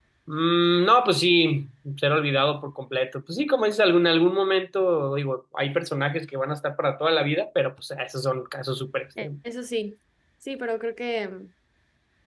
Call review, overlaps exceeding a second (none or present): none